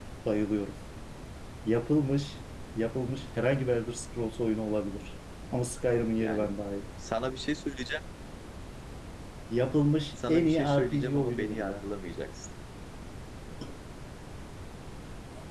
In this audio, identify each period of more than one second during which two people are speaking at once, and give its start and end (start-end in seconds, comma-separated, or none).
10.3-11.8